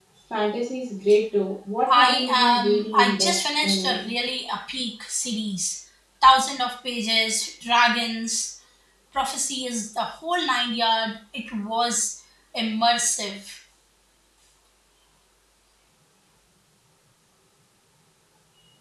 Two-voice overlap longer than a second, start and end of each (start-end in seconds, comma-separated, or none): 1.9-4.1